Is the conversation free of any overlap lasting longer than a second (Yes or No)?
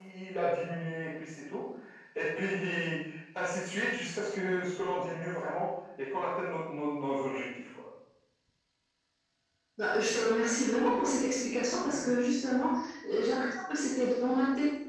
Yes